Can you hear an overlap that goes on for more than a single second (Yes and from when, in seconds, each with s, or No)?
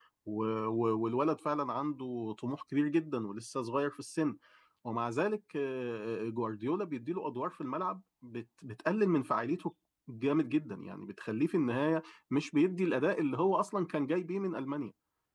No